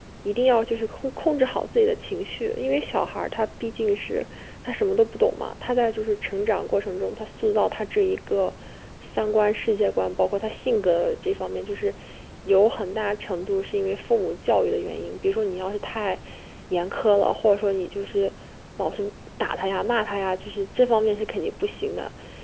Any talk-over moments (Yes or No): No